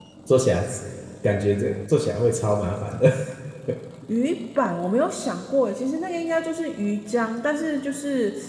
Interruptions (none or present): none